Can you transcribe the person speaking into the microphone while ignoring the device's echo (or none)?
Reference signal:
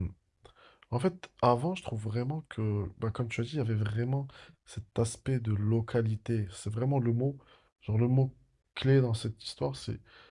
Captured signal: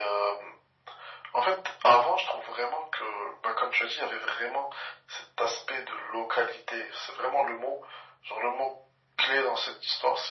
none